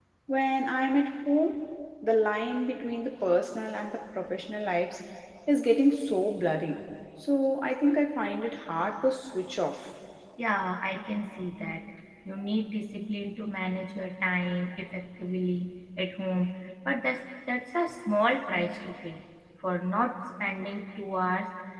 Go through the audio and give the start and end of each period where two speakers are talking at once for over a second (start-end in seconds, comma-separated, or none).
none